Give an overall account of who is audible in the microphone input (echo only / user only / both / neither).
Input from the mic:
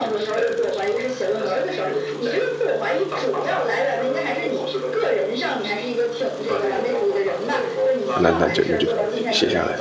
both